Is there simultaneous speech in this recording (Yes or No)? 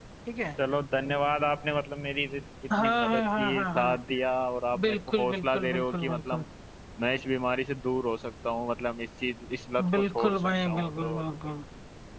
Yes